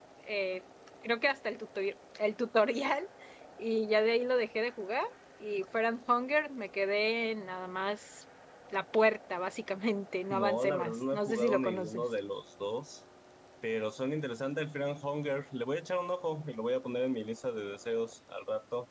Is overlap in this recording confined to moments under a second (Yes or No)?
No